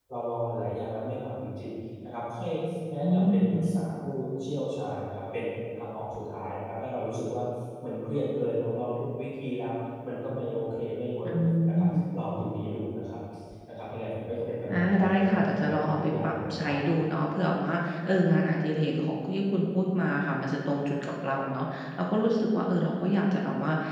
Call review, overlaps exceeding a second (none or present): present